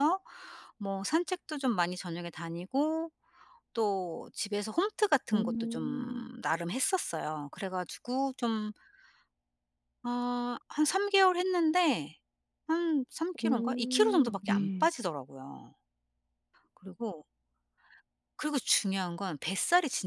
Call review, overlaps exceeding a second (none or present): present